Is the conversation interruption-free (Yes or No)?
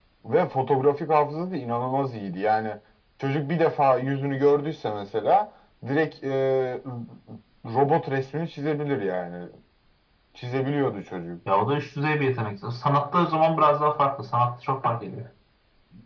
Yes